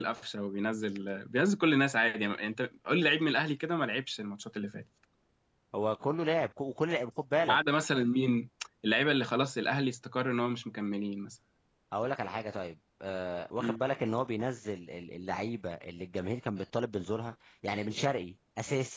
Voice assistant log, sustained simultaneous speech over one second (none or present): none